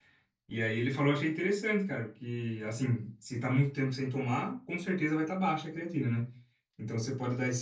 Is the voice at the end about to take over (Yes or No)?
No